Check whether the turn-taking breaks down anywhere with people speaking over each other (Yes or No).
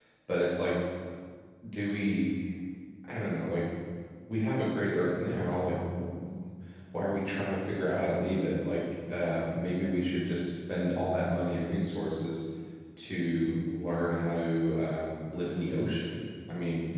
No